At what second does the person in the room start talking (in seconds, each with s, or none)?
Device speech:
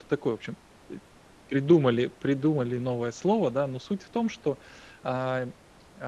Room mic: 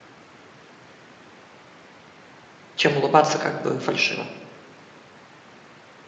2.7 s